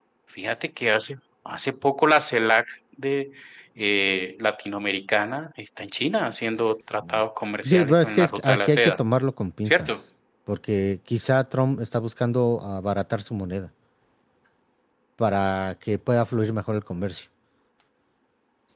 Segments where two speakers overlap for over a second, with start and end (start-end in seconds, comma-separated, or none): 7.6-9.0